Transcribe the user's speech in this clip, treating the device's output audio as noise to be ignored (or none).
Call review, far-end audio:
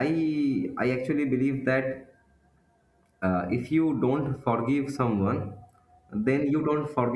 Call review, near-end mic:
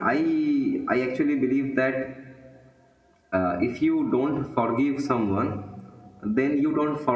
none